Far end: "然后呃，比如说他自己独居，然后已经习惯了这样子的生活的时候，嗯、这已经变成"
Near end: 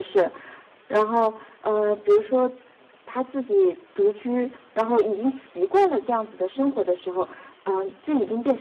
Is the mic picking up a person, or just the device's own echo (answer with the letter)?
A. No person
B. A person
A